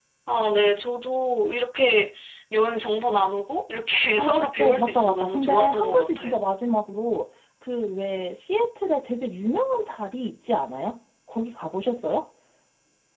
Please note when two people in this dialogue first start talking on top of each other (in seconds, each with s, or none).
4.2 s